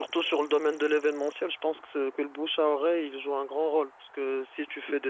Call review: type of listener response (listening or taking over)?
listening